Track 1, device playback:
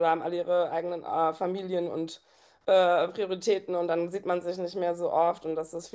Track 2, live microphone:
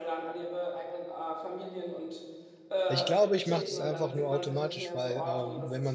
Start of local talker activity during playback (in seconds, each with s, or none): 2.9 s